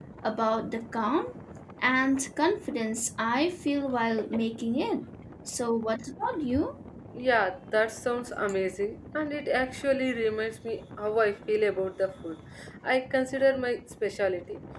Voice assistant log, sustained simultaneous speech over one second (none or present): none